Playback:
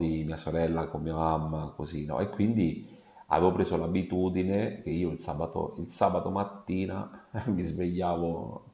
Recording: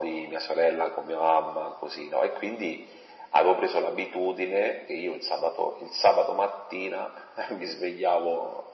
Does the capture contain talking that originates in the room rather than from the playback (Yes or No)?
No